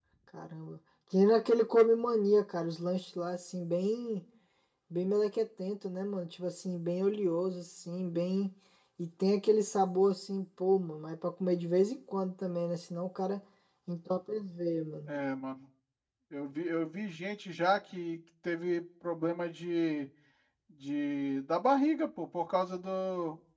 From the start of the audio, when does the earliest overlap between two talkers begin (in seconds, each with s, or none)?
none